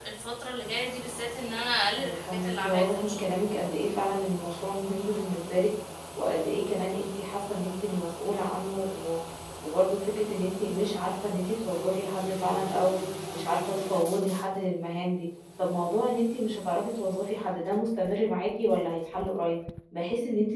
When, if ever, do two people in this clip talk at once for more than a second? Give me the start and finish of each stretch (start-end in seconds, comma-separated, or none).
2.0-3.3